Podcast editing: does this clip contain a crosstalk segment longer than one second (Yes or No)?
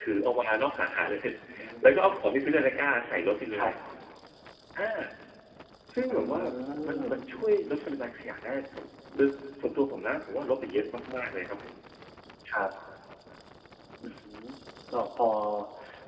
No